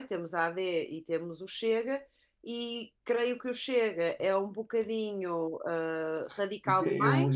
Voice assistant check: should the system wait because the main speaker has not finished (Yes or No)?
No